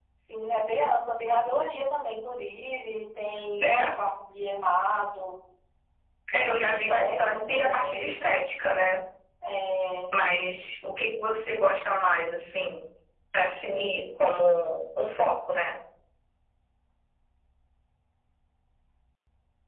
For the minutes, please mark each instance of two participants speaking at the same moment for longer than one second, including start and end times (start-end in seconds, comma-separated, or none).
6.3-8.2